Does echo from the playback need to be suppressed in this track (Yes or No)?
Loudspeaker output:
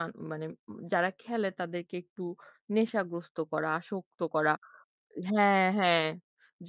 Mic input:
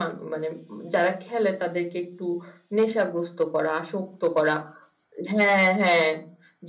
Yes